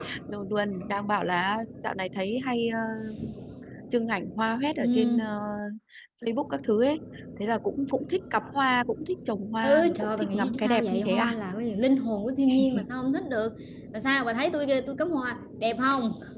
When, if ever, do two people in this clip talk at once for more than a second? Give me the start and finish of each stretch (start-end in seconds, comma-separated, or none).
9.6-11.3